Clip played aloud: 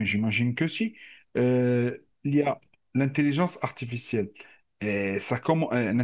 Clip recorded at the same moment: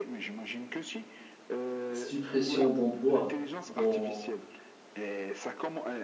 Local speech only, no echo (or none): suppression d'emplois dans,